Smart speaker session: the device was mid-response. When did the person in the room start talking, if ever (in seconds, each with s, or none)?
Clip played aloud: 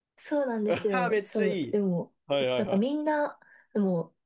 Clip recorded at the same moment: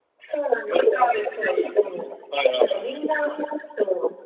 none